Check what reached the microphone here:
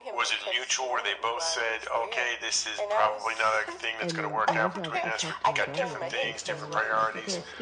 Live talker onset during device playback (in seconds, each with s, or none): 4.0 s